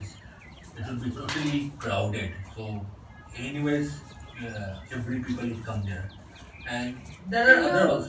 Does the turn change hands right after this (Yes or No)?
Yes